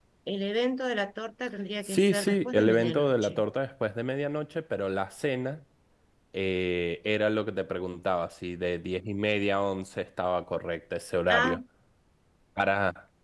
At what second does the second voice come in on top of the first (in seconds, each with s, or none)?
1.8 s